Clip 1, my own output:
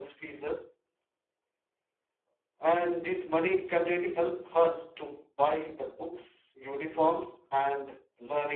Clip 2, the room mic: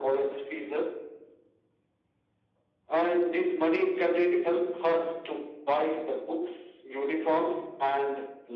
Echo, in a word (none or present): present